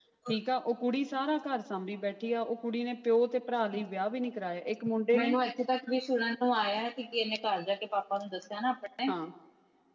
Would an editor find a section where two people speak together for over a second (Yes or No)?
No